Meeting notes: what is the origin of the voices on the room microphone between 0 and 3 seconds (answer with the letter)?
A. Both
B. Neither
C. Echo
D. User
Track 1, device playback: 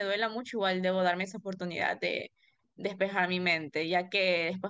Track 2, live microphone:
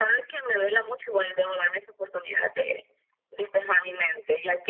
C